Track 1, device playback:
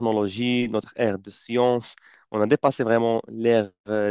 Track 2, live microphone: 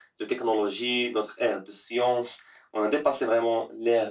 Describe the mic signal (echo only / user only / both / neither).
echo only